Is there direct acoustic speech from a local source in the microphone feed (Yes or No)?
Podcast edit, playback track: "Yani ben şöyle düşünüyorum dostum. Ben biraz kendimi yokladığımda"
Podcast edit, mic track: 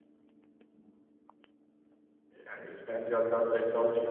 Yes